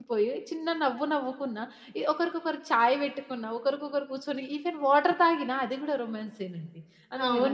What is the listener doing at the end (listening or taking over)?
taking over